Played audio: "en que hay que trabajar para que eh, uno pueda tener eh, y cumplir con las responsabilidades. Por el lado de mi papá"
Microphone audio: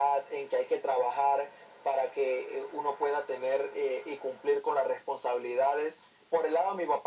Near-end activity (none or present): none